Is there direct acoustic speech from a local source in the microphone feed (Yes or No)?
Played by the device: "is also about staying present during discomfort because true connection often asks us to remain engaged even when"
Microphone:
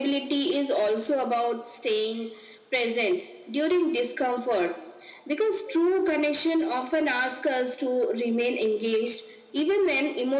No